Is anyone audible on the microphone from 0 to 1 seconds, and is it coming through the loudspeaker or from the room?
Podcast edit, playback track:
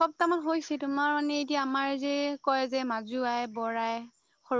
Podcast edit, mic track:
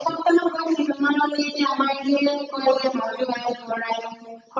echo only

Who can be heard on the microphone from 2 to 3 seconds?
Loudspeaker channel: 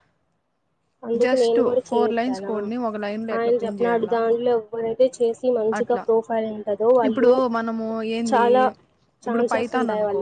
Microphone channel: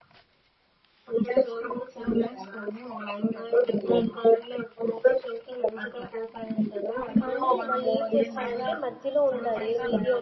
echo only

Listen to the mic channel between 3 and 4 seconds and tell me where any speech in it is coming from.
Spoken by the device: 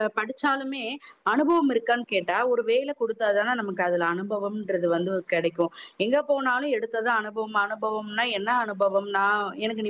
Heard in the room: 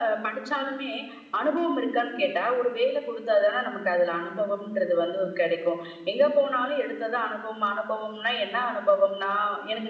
echo only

